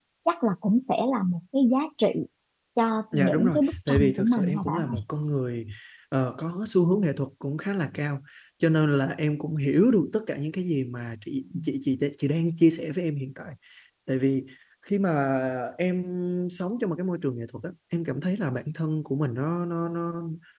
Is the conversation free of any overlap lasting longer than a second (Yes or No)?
No